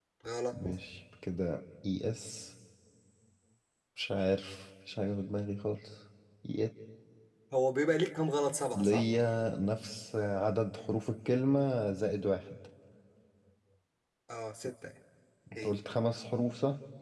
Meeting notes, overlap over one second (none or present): none